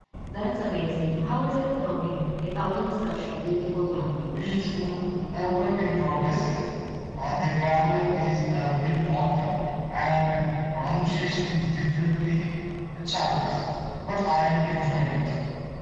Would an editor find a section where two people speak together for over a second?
No

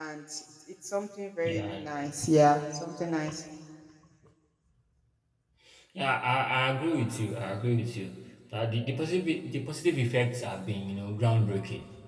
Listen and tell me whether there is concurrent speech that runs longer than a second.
No

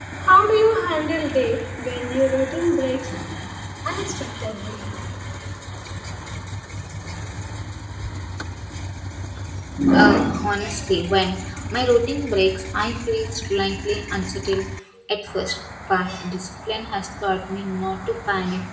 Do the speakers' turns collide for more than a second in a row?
No

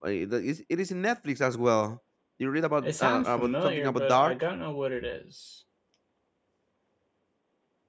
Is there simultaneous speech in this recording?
Yes, from 2.8 s

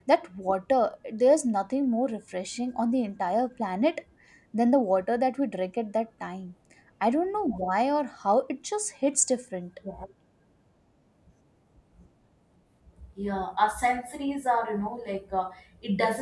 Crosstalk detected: No

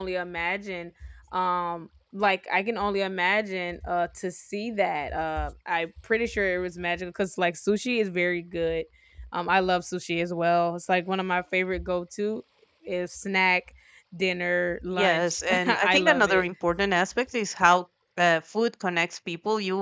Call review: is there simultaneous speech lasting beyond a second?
Yes, from 14.9 s

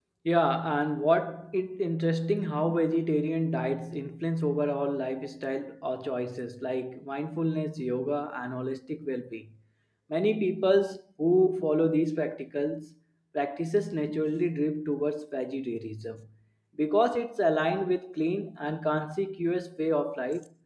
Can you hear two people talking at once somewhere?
No

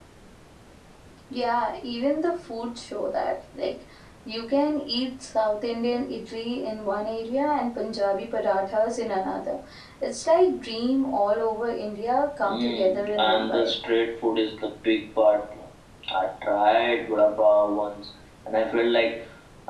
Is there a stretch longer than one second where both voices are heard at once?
Yes, from 12.4 s

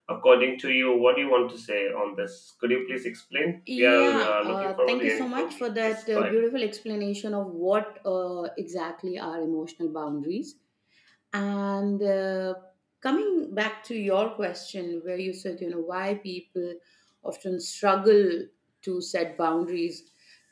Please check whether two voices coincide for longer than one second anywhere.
Yes, from 3.7 s

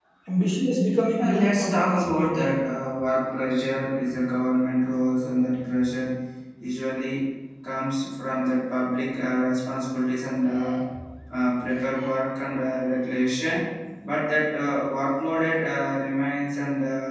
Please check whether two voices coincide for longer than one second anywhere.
Yes, from 1.2 s

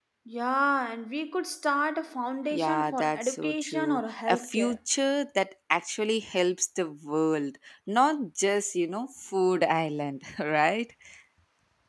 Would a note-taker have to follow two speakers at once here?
Yes, from 2.5 s

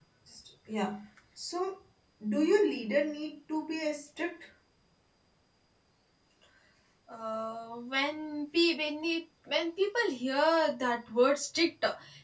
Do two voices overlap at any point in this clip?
No

